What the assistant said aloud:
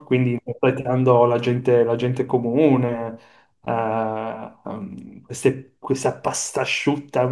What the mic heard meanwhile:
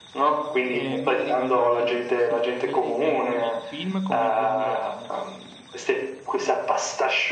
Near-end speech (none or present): present